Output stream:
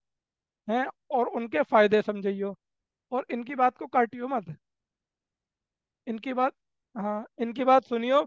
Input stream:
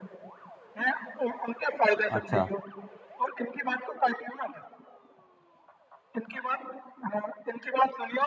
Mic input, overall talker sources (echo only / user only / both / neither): both